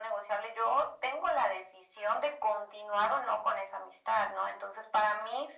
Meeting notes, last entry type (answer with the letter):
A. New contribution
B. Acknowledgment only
B